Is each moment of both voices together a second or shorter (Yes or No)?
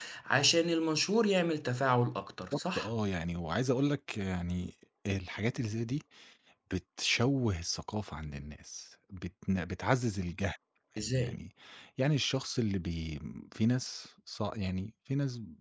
Yes